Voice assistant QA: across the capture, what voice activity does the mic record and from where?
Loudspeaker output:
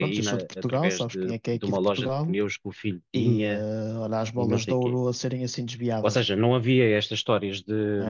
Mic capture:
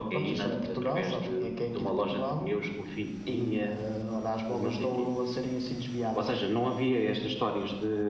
echo only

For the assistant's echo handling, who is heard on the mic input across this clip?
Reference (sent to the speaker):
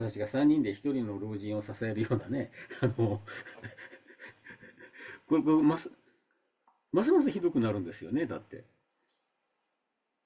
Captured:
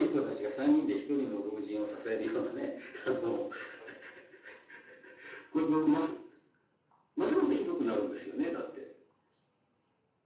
echo only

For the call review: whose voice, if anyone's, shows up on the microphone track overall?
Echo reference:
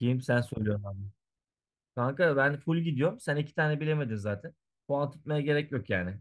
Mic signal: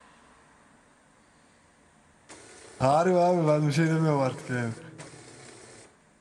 user only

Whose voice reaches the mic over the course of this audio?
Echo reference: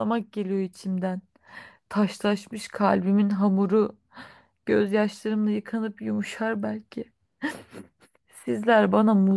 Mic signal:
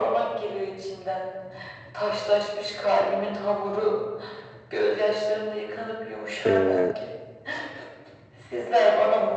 both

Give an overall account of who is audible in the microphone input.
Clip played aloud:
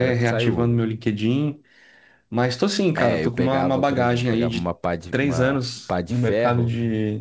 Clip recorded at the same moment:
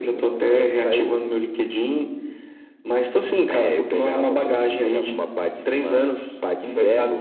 echo only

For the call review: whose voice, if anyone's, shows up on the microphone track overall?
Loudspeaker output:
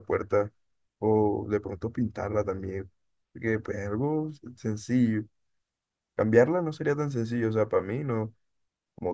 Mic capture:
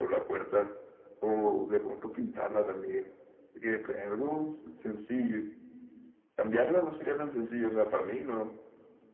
echo only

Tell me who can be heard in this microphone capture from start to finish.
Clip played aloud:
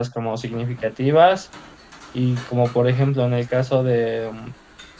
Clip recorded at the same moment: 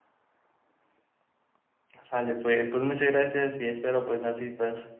user only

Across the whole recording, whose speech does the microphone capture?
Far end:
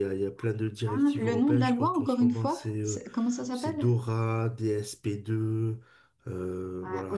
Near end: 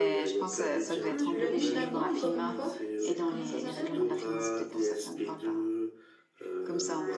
both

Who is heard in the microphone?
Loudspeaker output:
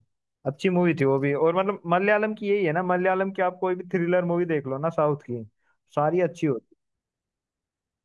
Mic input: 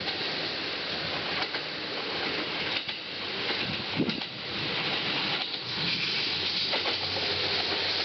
neither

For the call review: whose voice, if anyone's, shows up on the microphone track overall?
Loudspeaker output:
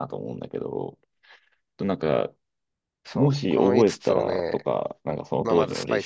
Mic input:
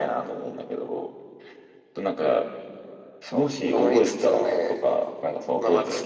echo only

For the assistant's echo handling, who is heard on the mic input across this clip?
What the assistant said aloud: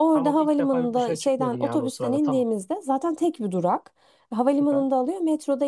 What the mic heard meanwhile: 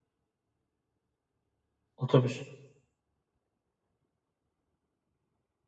user only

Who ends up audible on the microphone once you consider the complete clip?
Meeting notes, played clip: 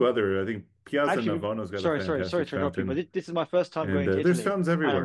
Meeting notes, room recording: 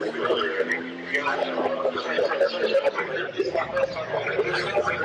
echo only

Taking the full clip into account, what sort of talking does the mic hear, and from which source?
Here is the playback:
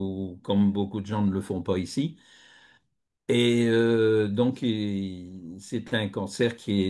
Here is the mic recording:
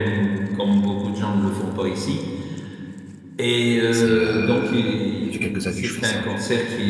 both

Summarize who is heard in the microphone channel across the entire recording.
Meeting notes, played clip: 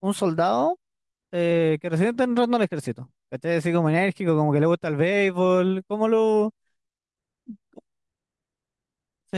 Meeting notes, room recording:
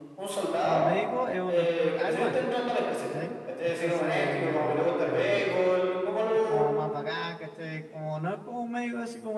both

